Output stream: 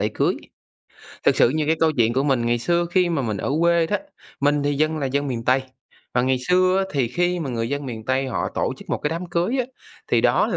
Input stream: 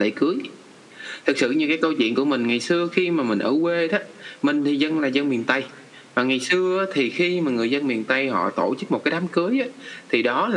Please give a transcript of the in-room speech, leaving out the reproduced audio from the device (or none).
none